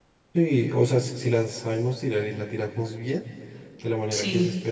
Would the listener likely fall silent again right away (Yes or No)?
Yes